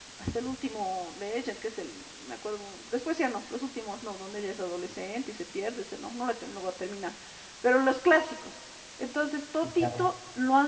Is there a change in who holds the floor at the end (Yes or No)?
No